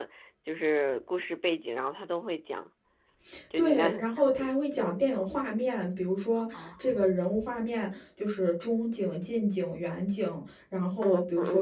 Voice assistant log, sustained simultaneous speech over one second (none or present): present